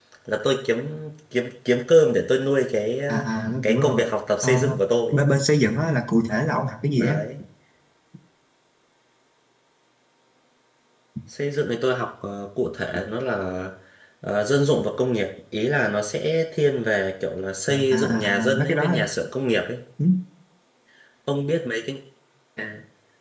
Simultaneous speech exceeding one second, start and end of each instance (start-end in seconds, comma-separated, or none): 17.7-19.0